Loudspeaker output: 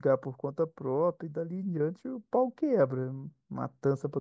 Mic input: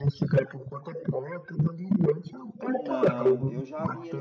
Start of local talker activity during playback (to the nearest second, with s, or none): 3 s